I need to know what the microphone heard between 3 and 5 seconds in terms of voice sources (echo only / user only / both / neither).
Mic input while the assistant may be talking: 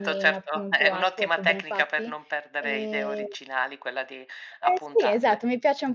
both